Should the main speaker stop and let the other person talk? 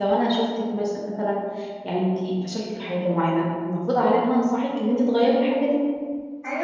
Yes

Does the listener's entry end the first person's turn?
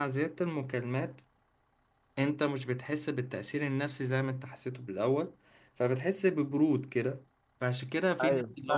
No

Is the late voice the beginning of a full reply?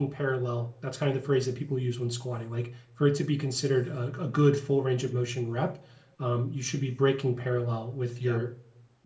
No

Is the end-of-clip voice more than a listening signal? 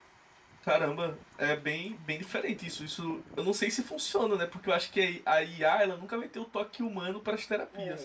Yes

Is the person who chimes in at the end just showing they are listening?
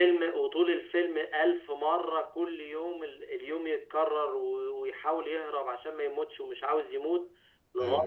Yes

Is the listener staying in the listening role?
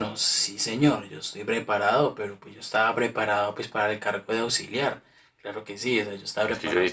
No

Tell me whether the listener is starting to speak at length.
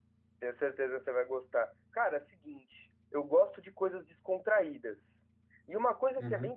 No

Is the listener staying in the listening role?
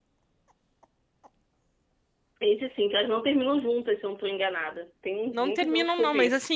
No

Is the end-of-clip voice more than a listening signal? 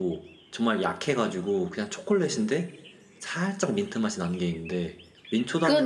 Yes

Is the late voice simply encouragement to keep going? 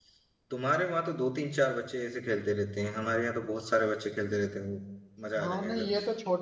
No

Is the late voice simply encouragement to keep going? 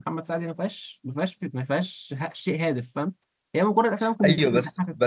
No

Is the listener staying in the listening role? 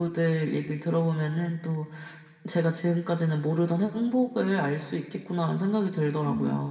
No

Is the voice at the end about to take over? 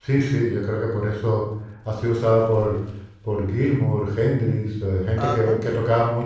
No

